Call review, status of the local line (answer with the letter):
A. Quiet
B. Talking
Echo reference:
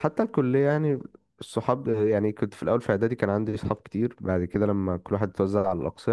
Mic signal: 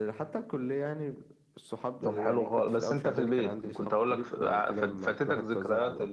B